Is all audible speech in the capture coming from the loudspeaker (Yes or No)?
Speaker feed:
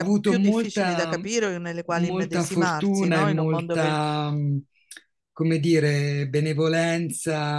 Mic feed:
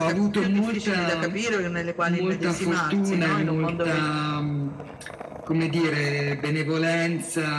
Yes